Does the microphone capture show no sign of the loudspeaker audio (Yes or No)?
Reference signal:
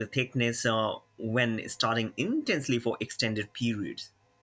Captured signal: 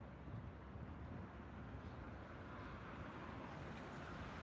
Yes